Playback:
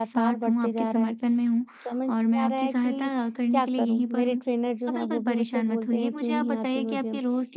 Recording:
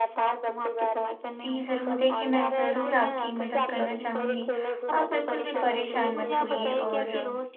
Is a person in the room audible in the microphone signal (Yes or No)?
Yes